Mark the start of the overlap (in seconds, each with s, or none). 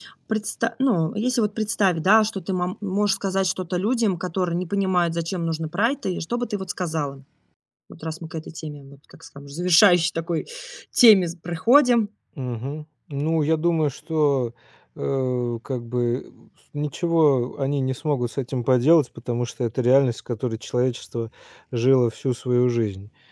none